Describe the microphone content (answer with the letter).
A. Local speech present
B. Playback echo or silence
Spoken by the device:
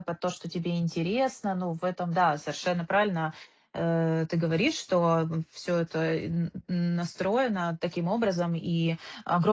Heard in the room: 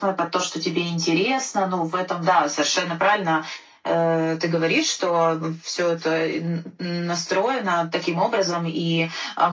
B